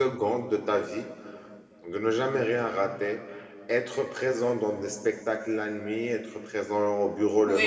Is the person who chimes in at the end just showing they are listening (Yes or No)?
No